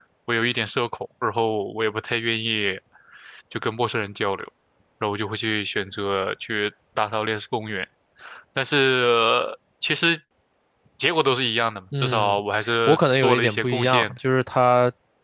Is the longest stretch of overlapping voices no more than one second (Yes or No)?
No